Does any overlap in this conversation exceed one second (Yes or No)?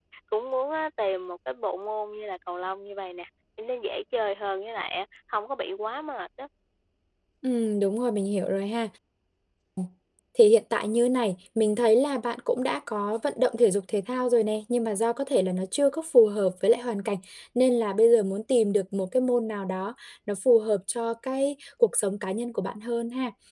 No